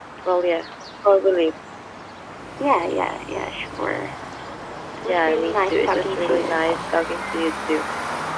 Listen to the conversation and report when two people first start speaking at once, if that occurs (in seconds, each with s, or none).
5.0 s